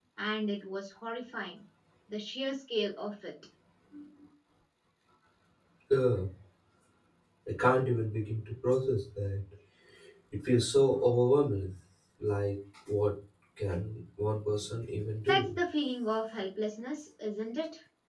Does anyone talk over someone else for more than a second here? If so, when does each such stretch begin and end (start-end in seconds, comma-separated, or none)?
none